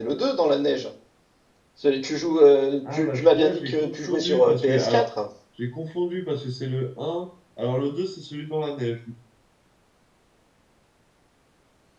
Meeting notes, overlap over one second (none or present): present